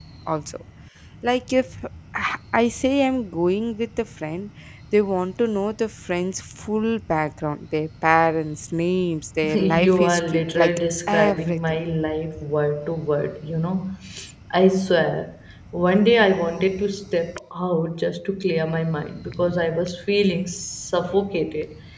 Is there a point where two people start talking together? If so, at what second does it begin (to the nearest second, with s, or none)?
9 s